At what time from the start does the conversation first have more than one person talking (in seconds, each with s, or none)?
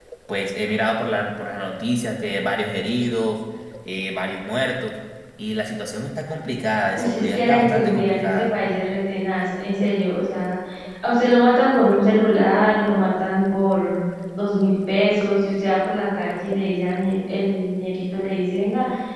7.0 s